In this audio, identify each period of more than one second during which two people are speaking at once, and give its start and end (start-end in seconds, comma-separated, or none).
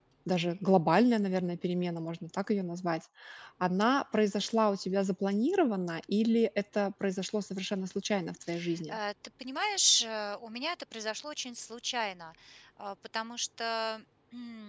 none